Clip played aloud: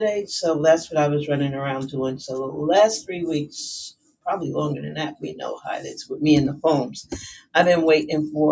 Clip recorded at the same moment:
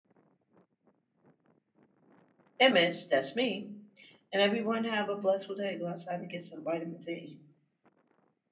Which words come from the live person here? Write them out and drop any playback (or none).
image, that's me and everyone have a blessed day. Go outside and get some vitamin D.